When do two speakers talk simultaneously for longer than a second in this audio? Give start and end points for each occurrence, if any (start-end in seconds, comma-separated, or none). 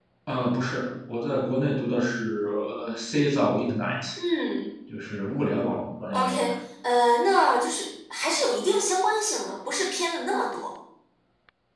none